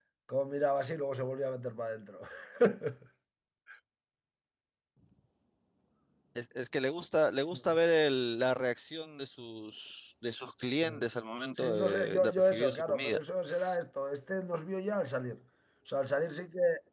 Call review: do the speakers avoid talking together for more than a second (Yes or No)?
No